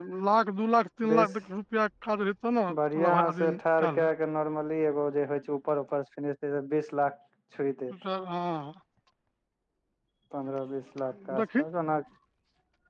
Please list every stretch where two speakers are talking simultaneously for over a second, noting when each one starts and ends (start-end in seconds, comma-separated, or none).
2.7-4.1